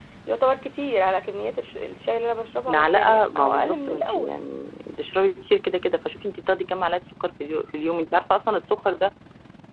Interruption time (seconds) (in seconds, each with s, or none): 2.7 s